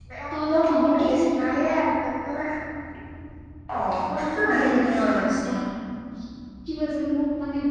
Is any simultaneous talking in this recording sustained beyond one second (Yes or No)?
Yes